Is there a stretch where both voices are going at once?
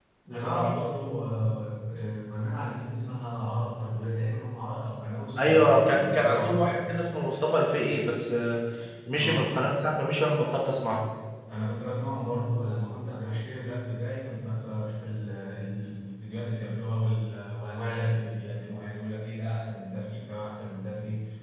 Yes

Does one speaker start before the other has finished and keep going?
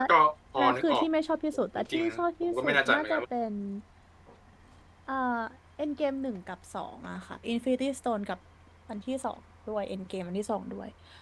Yes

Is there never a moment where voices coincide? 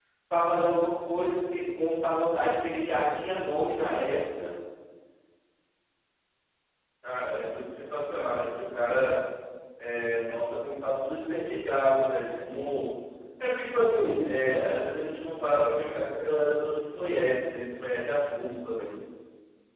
Yes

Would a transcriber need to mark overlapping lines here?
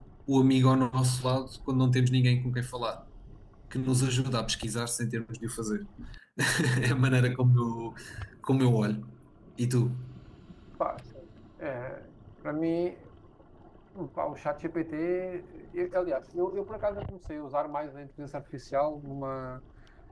No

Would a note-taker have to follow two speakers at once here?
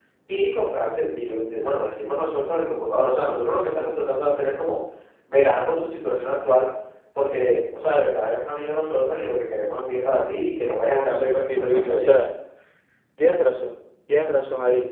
Yes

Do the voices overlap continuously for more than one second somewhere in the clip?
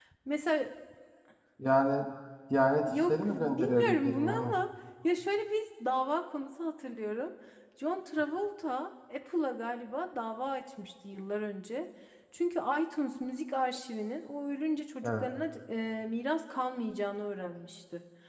Yes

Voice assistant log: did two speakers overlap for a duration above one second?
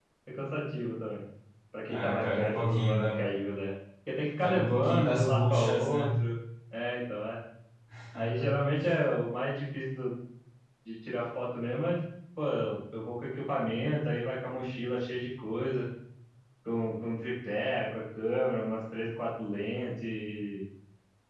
Yes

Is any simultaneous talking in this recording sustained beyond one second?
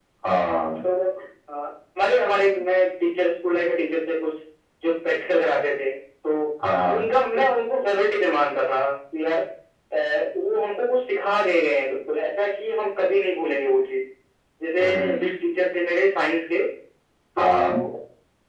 No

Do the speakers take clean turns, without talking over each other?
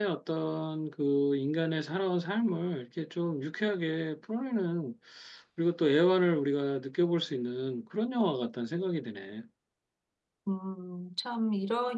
Yes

